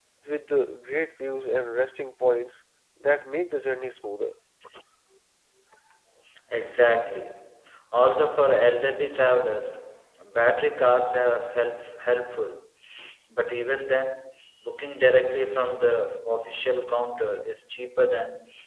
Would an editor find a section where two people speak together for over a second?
No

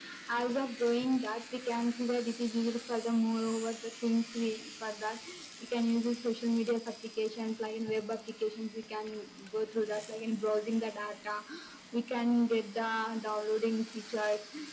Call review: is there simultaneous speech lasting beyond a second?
No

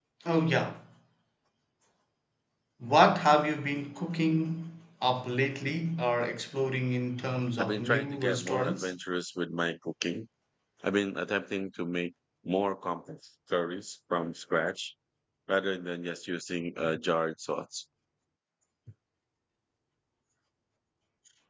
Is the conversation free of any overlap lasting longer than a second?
No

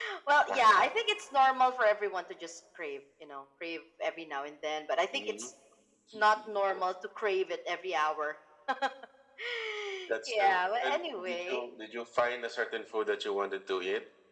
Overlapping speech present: Yes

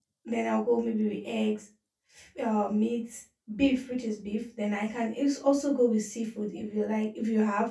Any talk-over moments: No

